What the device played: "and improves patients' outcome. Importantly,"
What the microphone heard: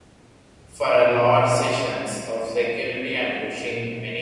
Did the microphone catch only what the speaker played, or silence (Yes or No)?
No